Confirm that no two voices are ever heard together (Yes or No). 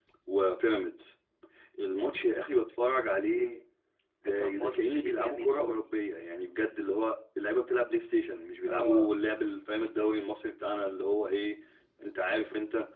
No